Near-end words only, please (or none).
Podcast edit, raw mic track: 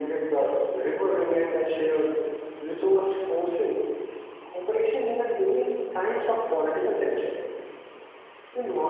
none